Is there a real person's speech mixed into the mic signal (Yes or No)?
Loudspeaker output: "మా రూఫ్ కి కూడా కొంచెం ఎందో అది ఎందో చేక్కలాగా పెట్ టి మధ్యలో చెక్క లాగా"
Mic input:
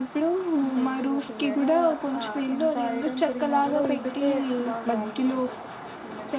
Yes